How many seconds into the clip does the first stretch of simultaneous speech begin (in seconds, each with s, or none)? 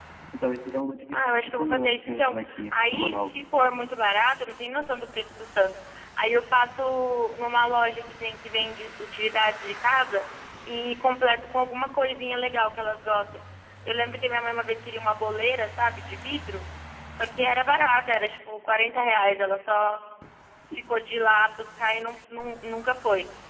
1.1 s